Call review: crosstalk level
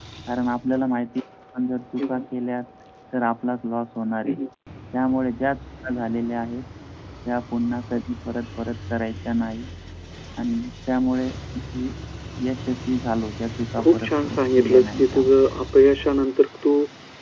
present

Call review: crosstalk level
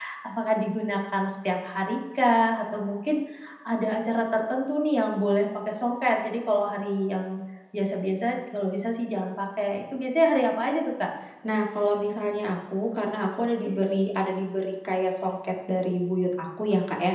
none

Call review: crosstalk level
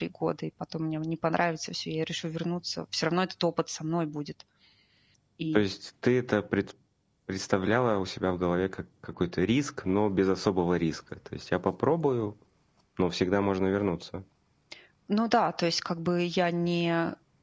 none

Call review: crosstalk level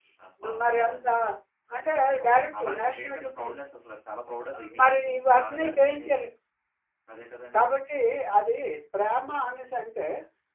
present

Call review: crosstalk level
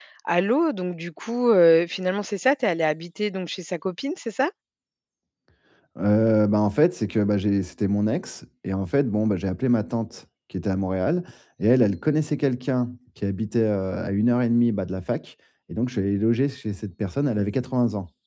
none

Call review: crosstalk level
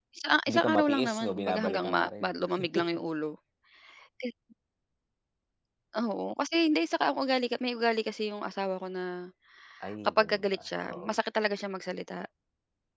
present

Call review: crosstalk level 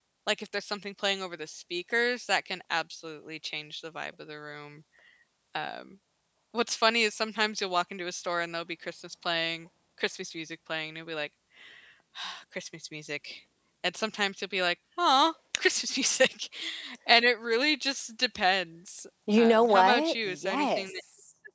present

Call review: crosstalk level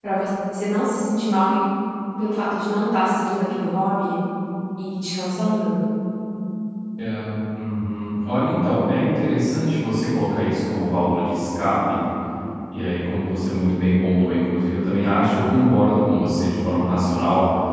none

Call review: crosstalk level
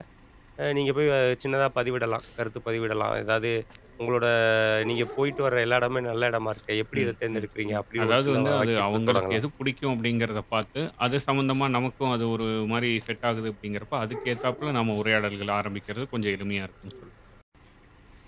present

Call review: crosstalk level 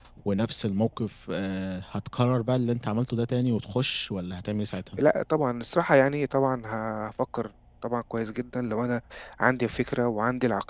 none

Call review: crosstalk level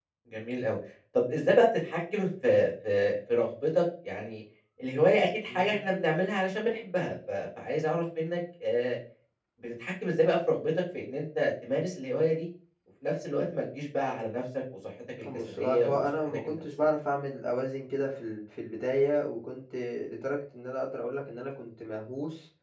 present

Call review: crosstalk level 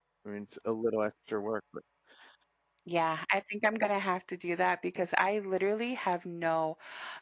none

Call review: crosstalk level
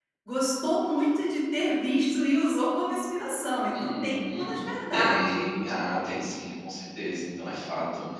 present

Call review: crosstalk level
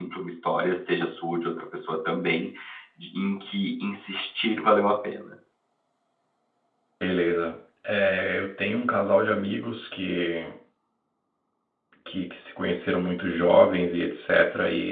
none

